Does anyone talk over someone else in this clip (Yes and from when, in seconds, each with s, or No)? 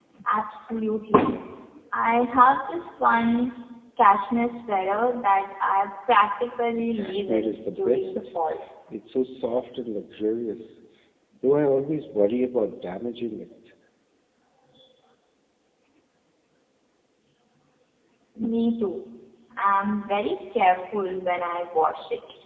Yes, from 6.8 s